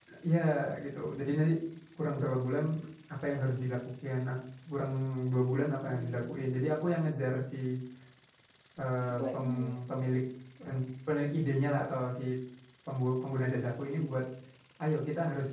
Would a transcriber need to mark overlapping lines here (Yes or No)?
Yes